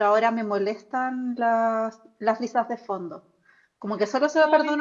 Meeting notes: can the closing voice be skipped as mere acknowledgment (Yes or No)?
Yes